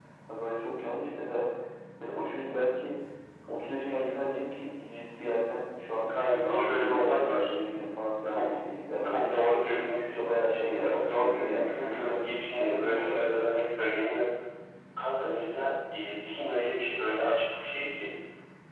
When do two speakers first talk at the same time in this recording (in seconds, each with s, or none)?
6.1 s